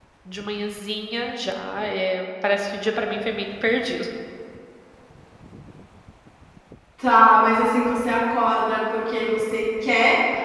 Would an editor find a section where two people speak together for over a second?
No

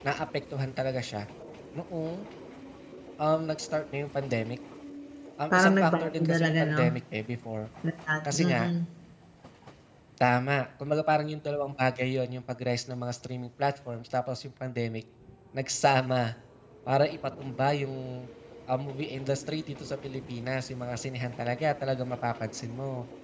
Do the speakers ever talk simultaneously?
Yes, from 5.5 s

